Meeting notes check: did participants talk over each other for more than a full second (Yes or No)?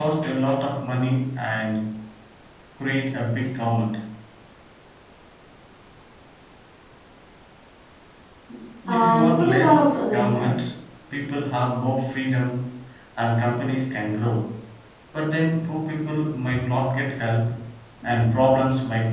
Yes